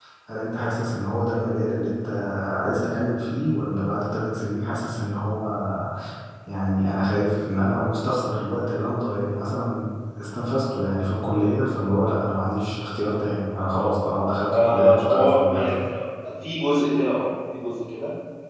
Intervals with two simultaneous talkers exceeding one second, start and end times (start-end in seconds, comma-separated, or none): 14.5-15.8